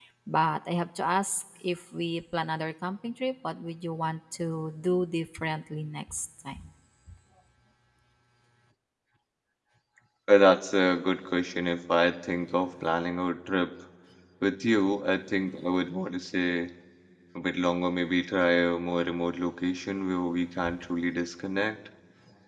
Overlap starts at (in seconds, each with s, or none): none